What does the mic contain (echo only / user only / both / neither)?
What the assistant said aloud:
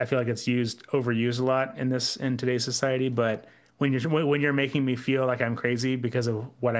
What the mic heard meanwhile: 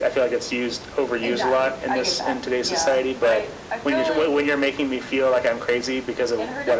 both